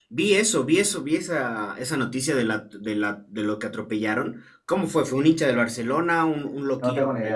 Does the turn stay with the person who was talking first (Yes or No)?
No